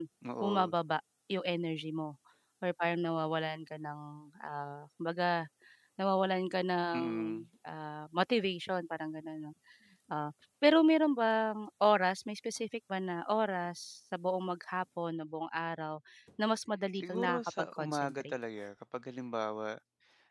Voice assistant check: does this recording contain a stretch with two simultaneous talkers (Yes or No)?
Yes